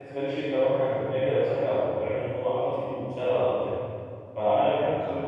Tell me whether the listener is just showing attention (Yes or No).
Yes